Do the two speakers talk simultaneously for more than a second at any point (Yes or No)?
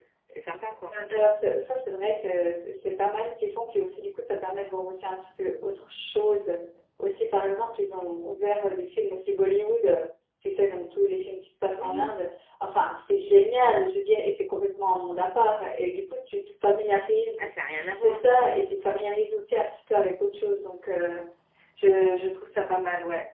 No